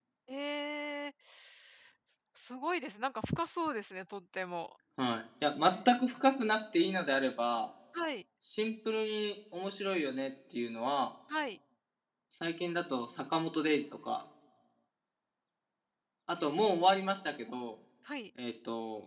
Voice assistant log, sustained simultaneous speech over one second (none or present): none